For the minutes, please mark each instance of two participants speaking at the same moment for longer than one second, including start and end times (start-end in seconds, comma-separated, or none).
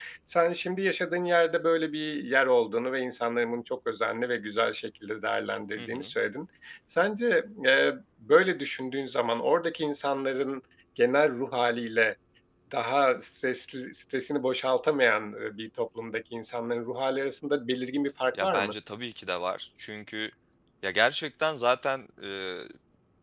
none